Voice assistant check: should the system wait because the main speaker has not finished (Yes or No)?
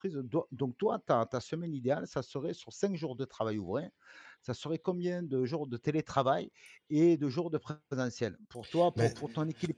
Yes